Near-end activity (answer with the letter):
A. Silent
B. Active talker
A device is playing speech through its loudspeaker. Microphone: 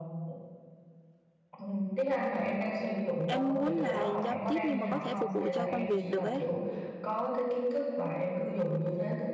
B